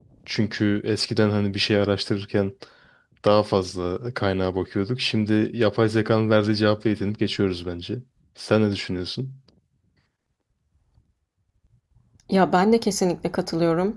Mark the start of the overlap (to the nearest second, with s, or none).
none